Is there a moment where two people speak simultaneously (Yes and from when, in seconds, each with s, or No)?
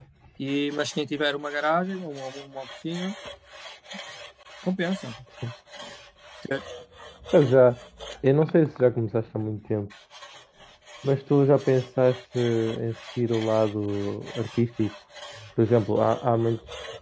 No